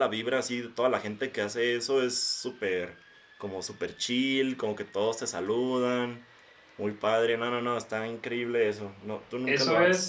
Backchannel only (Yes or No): No